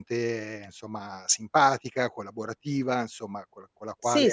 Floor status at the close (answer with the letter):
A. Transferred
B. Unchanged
A